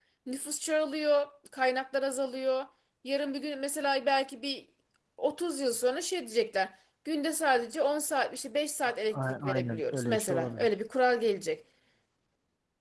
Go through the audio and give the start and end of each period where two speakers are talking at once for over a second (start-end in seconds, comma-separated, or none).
8.8-10.7